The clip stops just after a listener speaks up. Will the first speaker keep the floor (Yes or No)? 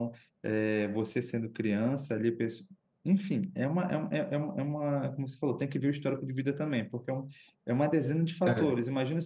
Yes